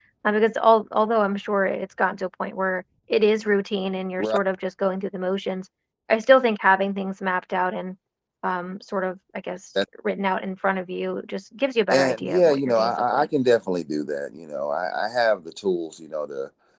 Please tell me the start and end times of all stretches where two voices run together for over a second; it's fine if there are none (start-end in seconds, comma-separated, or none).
11.9-13.3